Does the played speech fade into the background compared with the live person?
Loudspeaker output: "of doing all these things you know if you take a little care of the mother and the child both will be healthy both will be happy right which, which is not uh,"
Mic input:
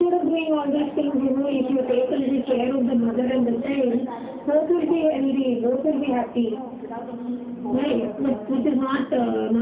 No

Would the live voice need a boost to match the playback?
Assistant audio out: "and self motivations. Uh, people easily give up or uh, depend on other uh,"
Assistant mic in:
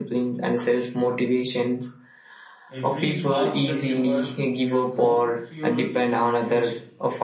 Yes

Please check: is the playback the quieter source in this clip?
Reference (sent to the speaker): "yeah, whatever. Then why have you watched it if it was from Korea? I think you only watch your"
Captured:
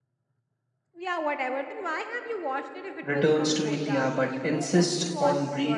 Yes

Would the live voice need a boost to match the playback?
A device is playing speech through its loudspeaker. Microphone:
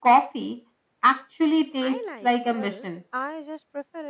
Yes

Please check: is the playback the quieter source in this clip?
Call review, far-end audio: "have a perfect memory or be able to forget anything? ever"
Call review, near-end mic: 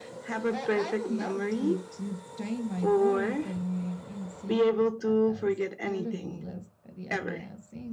No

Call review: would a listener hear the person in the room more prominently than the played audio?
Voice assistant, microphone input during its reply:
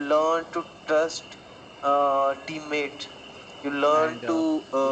No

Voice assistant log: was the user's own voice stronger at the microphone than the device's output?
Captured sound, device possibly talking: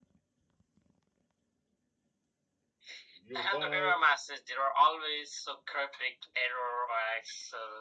No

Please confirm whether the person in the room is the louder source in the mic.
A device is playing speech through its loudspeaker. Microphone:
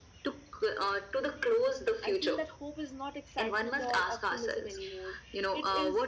No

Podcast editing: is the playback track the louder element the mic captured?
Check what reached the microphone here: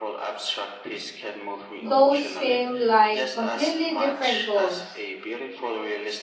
No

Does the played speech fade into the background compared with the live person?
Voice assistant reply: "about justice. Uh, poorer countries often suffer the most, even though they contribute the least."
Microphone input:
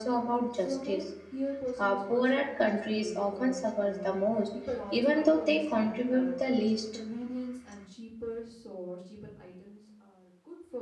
No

